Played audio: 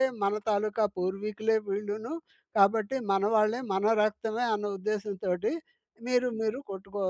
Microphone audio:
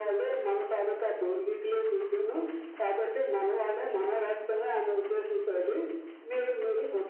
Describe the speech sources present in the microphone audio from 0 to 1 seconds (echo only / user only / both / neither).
echo only